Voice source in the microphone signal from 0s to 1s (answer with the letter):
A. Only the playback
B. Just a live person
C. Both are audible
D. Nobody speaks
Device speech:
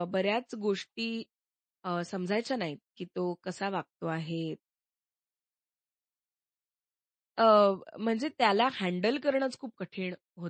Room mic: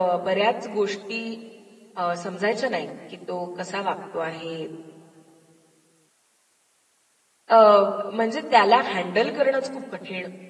A